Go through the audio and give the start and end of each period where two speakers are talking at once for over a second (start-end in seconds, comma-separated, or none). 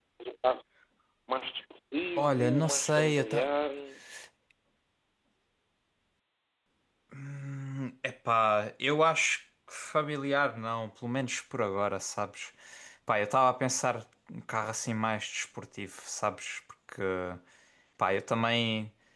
2.2-3.5